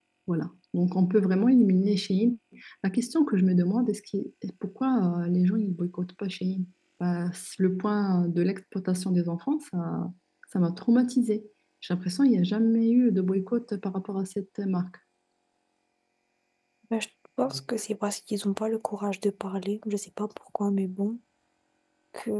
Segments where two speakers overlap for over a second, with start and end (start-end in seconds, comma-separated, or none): none